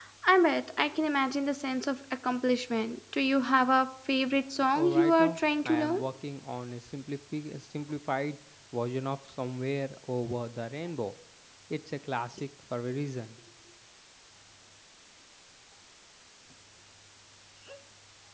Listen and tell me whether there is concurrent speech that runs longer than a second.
Yes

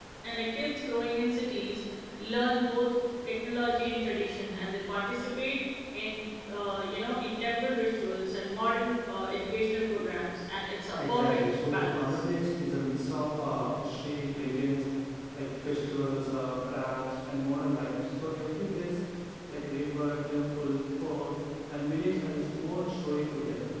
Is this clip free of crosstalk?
No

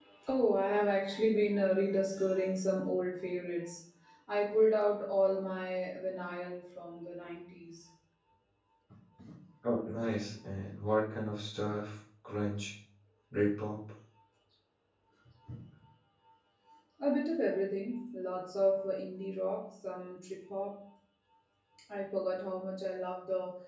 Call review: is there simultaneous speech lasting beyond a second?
No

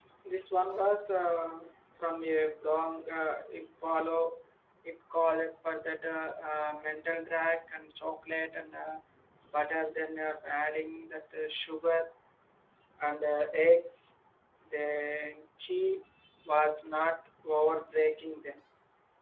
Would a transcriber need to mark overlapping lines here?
No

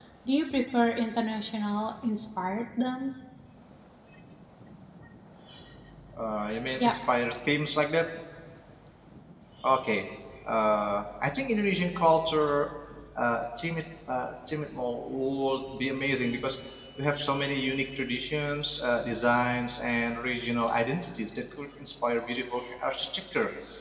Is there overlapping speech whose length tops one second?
No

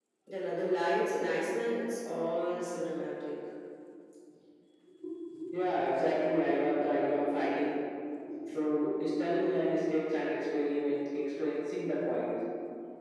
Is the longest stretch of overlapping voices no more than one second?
Yes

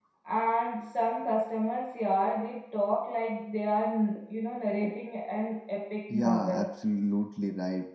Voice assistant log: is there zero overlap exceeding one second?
Yes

